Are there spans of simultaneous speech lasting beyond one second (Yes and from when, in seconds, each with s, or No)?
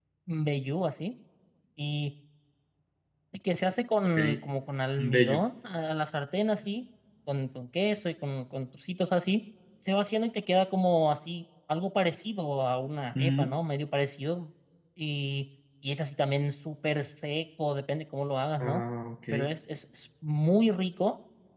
No